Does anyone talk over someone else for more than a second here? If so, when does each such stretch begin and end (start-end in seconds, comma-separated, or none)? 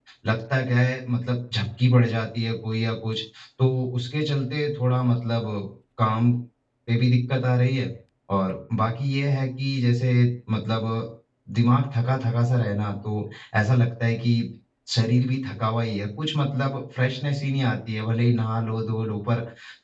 none